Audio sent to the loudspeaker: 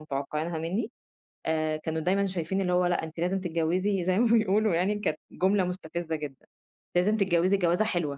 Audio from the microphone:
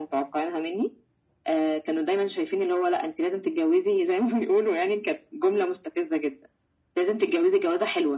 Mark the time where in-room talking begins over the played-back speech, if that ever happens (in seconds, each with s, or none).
none